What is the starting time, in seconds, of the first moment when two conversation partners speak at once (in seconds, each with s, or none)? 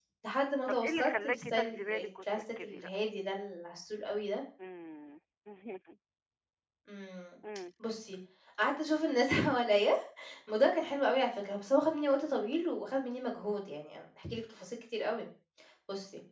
0.7 s